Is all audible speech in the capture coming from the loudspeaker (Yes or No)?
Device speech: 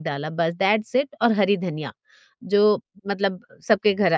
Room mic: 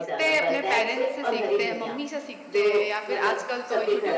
No